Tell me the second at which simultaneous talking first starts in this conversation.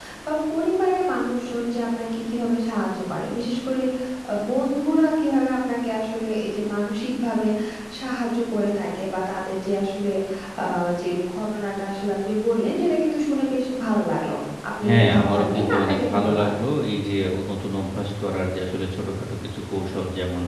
15 s

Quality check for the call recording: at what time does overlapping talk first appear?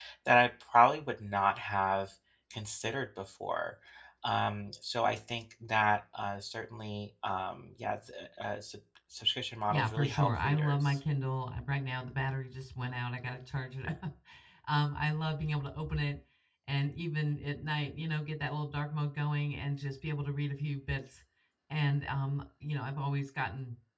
10 s

